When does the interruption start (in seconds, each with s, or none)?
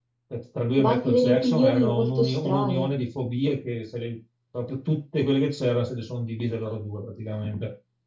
0.8 s